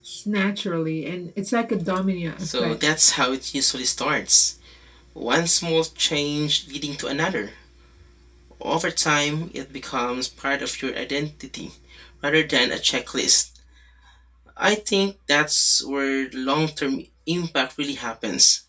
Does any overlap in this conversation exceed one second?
No

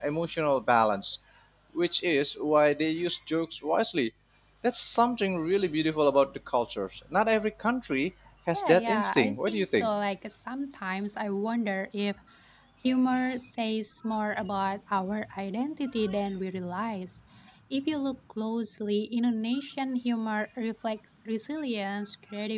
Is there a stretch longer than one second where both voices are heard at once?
Yes, from 8.5 s

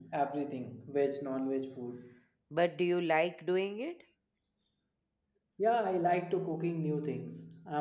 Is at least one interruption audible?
No

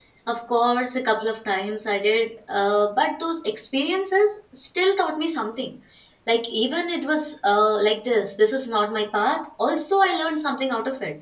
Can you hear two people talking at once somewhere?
No

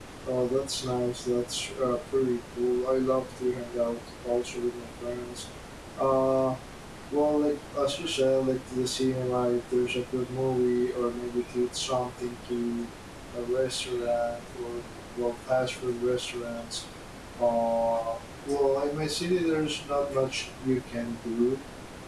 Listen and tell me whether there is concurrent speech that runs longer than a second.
No

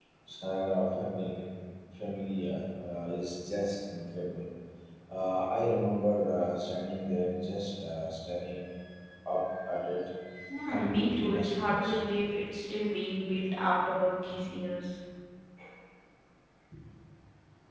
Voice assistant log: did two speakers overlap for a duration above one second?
Yes, from 10.7 s

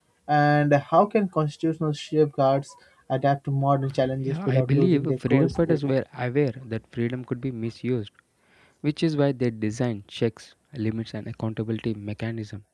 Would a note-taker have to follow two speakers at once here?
Yes, from 4.3 s

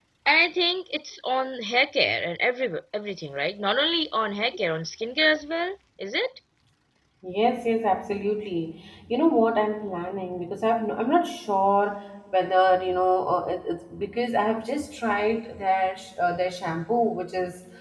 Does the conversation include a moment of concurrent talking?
No

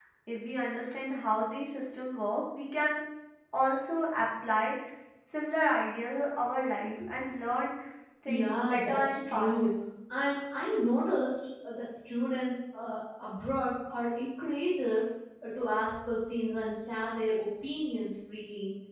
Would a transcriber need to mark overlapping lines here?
Yes, from 8.3 s

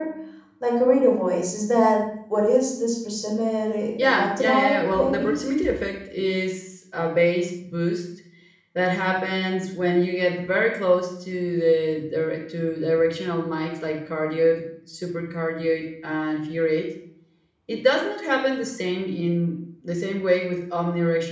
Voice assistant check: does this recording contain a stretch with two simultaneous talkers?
Yes, from 4.0 s

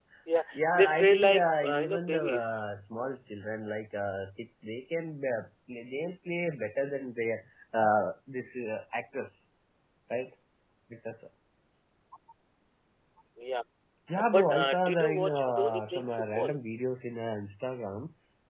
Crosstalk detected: Yes, from 0.6 s

